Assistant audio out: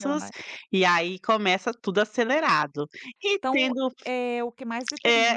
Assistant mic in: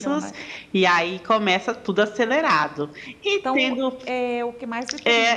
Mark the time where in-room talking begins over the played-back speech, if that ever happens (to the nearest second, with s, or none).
none